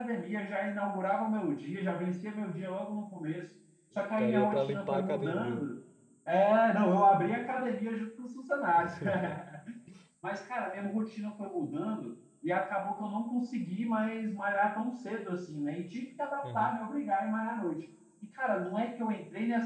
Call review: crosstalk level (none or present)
present